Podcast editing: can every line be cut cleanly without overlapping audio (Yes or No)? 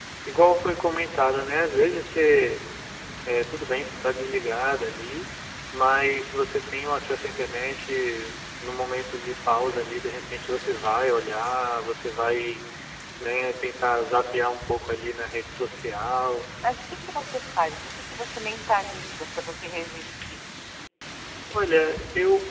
Yes